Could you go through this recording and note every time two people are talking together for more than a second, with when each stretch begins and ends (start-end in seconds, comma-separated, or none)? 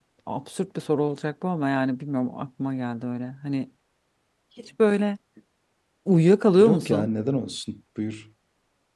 none